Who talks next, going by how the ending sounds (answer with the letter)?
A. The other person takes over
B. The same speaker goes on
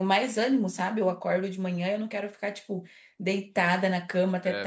B